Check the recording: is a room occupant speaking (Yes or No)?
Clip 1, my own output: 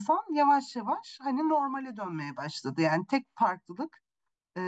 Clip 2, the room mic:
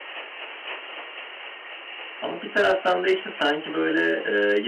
Yes